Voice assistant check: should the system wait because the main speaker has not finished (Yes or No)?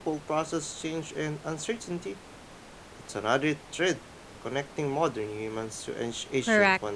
No